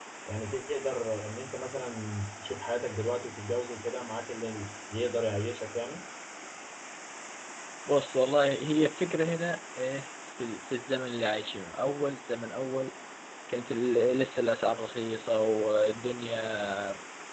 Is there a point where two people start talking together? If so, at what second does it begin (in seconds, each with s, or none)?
none